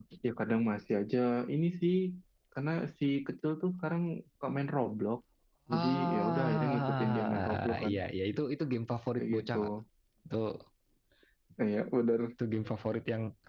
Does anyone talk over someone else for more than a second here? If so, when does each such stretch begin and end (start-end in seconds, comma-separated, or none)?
5.8-7.9